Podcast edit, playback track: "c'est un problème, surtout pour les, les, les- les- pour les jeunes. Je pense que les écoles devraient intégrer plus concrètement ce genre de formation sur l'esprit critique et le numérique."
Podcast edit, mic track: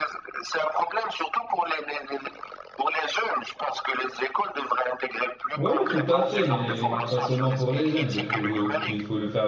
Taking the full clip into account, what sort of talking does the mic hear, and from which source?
both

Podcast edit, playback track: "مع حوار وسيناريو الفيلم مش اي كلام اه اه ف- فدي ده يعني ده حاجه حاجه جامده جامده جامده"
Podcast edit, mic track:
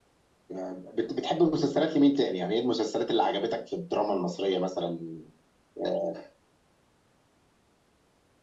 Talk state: user only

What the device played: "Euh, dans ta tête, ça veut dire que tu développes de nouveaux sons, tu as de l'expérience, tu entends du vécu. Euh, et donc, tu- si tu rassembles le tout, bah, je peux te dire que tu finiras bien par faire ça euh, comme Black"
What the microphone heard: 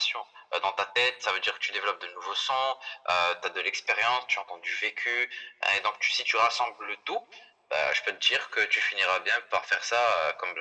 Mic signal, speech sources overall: echo only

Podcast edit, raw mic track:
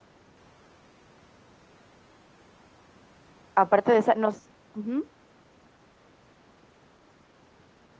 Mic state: user only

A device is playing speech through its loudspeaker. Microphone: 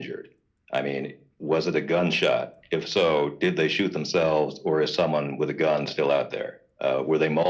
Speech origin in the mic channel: echo only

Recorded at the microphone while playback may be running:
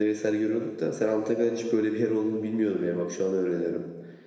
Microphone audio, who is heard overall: user only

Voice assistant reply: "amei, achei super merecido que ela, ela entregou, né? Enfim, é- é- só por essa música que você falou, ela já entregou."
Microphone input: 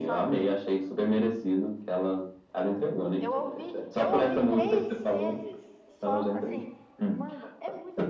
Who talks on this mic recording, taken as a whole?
both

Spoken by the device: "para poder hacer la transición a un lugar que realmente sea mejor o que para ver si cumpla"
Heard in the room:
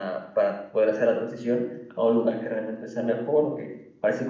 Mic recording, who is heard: echo only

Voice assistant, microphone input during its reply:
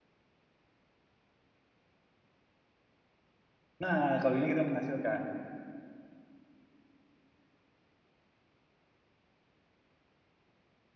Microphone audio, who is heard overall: user only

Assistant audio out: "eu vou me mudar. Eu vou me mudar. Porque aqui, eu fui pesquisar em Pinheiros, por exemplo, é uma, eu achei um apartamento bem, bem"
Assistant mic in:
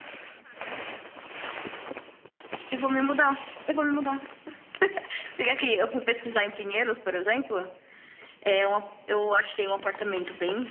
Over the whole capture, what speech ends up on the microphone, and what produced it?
echo only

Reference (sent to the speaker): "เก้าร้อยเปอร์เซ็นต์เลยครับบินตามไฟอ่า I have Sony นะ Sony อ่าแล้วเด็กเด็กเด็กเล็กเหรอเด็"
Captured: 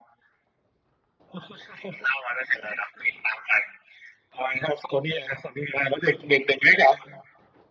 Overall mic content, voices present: echo only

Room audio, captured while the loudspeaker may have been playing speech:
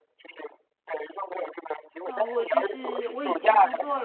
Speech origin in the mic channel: both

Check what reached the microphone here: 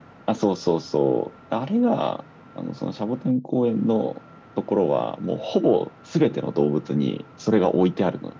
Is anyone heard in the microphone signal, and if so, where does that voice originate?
echo only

